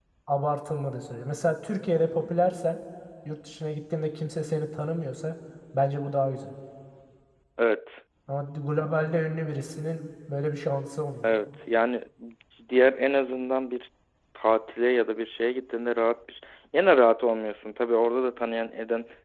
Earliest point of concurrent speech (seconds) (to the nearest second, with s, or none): none